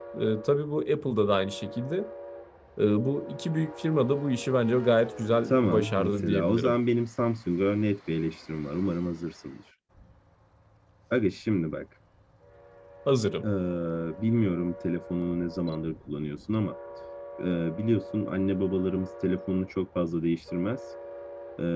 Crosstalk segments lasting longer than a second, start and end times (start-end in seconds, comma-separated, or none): 5.5-6.8